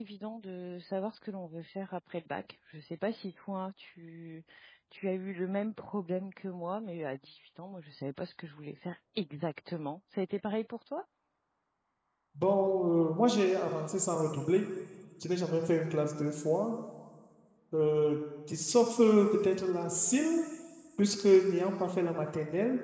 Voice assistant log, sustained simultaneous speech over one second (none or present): none